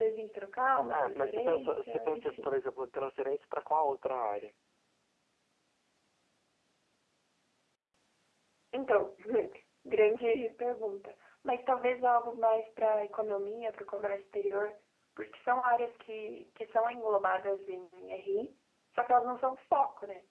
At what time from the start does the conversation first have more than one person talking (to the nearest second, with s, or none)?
1 s